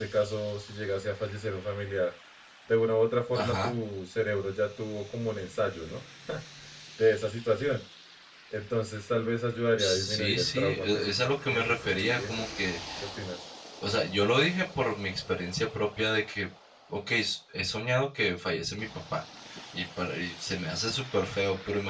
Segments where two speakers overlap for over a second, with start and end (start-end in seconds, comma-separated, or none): 9.8-12.4